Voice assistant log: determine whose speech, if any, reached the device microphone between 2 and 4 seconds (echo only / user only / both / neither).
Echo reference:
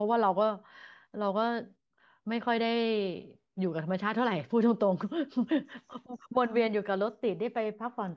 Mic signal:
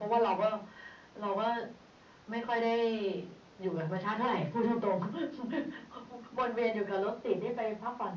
echo only